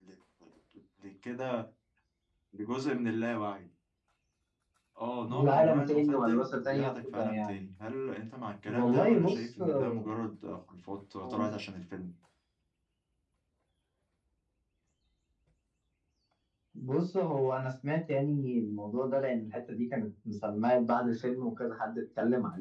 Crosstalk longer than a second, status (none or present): present